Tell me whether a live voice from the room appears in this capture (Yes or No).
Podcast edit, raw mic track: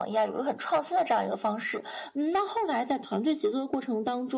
No